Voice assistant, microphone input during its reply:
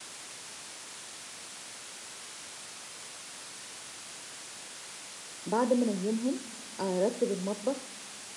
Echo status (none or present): none